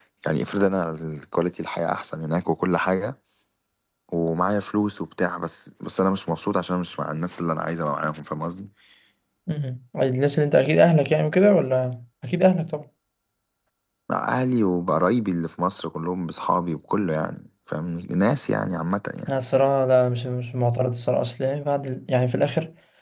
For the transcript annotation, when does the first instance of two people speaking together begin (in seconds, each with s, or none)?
none